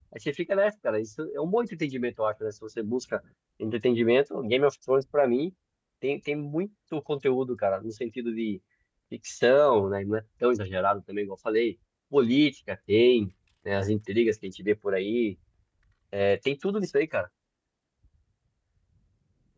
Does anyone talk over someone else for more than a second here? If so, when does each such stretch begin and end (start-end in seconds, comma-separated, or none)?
none